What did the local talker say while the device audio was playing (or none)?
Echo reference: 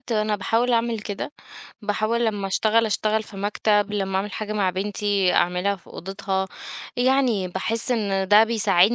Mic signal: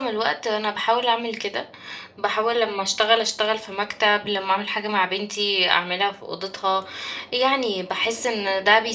none